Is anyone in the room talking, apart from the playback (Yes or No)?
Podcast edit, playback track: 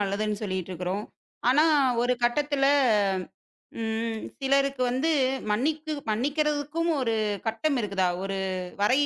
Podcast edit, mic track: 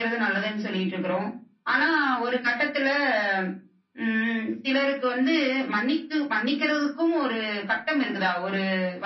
No